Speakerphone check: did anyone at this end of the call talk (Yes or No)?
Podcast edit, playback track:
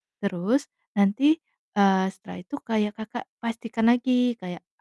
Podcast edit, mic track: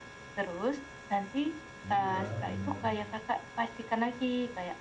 Yes